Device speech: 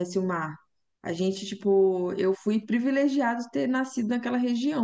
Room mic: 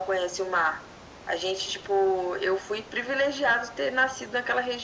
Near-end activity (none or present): none